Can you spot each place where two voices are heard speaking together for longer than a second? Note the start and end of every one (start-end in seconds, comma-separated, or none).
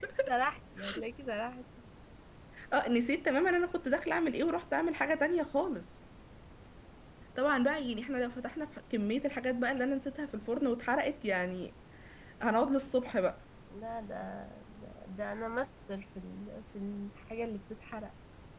none